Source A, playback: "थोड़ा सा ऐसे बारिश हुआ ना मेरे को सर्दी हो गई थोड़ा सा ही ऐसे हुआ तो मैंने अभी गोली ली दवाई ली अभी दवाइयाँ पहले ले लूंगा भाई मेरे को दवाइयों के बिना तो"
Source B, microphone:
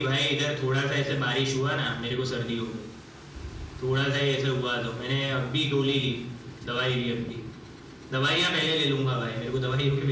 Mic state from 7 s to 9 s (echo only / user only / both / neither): echo only